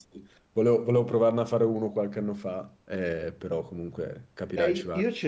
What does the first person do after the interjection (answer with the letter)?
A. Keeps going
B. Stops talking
B